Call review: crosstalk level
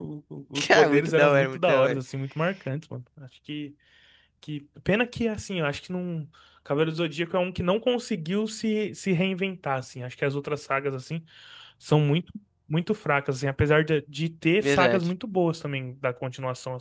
present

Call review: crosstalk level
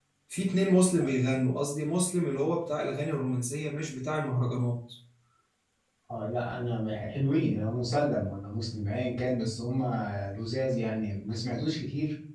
none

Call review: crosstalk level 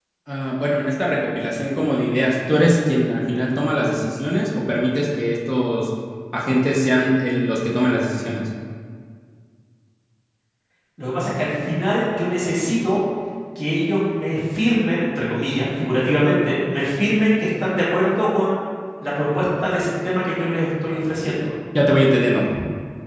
none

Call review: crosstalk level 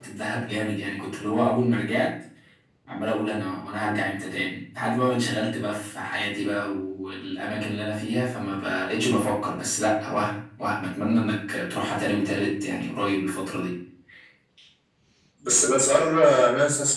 none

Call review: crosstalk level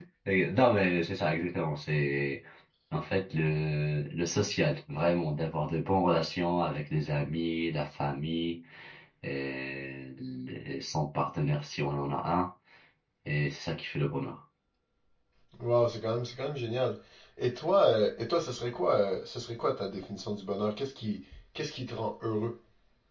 none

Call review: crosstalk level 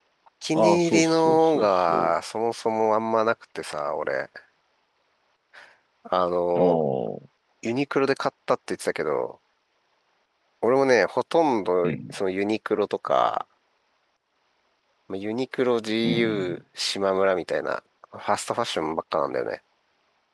present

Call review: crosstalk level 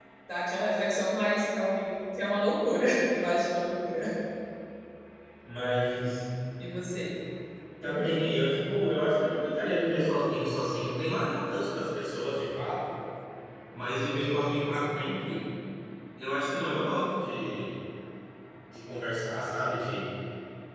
none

